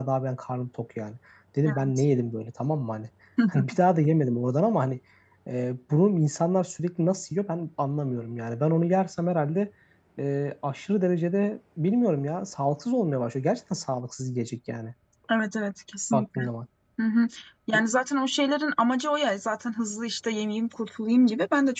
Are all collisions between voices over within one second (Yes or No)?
Yes